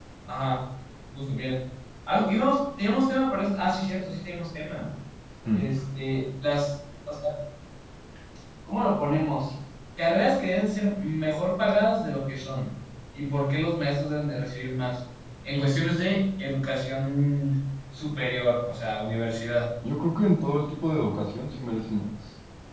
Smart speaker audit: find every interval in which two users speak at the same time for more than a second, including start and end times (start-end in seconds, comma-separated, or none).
none